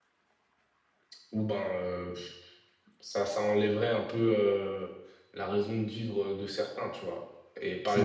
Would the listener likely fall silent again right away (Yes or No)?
Yes